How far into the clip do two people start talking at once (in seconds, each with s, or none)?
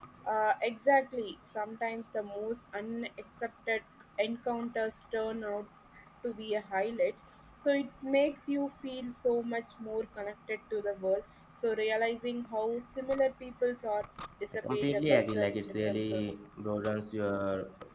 14.6 s